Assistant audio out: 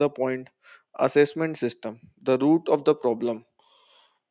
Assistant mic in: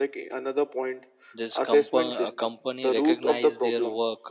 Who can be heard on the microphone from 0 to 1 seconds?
echo only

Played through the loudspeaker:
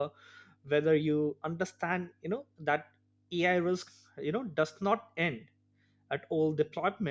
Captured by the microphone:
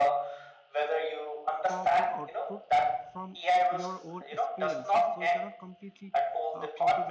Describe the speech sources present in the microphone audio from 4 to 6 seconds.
both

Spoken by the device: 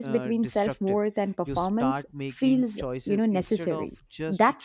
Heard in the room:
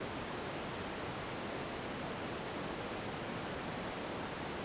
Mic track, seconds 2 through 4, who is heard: neither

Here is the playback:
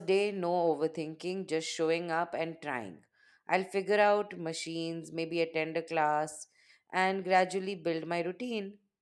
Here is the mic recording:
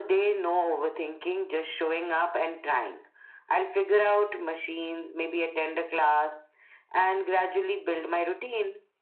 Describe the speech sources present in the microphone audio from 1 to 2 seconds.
echo only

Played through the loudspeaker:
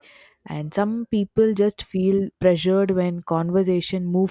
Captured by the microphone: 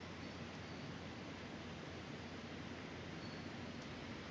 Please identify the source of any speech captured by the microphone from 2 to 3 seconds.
neither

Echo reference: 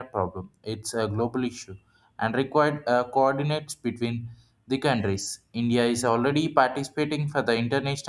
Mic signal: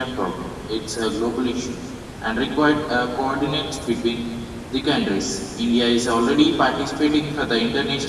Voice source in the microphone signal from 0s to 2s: echo only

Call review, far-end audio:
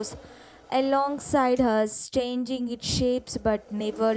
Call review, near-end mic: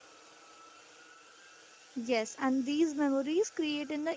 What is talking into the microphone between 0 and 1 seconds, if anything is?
neither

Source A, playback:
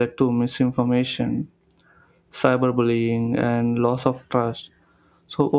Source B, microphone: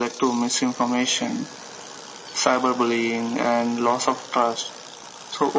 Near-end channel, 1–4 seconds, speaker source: echo only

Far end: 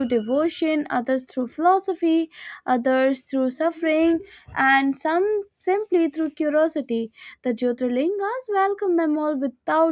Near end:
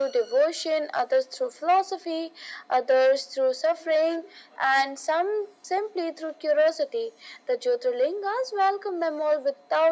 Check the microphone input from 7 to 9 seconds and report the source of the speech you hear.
echo only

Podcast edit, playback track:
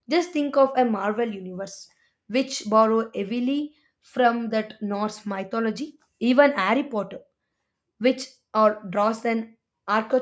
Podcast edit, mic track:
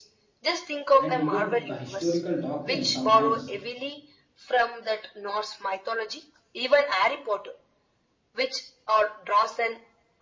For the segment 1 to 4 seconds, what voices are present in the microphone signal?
both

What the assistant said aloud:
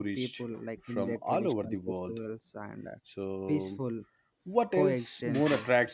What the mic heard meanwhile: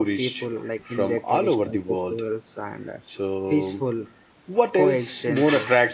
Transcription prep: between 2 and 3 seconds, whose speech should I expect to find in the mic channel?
echo only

